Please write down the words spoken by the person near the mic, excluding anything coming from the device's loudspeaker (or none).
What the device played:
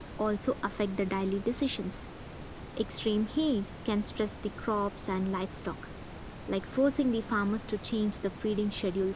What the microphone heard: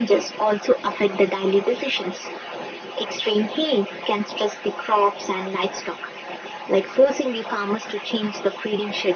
none